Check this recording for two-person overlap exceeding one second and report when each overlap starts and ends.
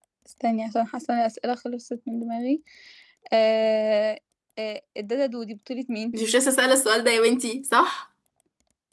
none

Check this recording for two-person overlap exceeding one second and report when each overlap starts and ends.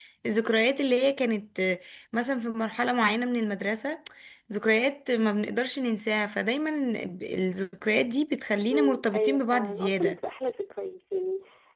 8.7-10.2

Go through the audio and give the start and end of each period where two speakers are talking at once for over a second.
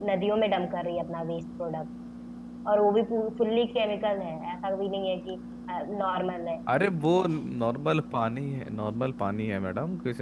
none

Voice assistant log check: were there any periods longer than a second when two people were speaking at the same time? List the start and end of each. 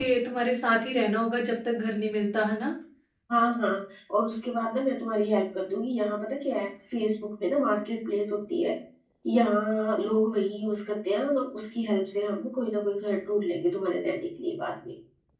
none

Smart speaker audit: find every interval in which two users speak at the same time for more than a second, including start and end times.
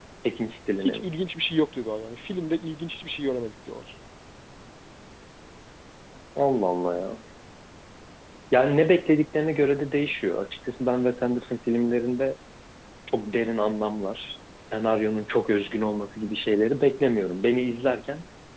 none

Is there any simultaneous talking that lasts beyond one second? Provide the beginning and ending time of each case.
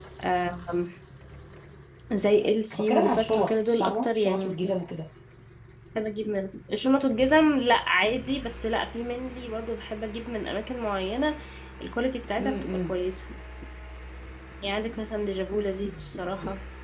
2.8-4.6

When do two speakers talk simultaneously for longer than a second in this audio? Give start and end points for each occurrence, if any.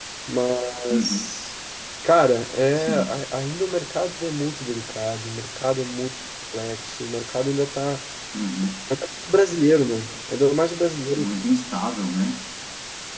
none

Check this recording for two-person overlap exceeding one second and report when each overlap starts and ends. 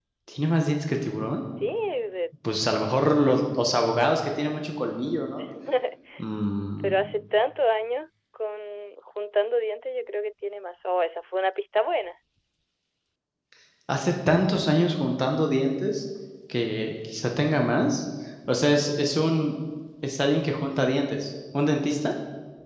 none

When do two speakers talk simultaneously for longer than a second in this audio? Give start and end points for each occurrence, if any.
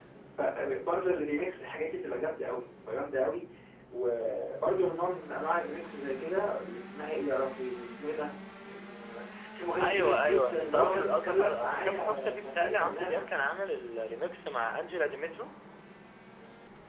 9.8-13.3

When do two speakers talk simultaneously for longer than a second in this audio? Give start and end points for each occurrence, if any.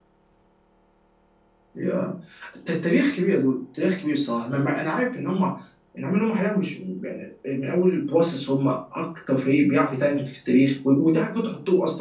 none

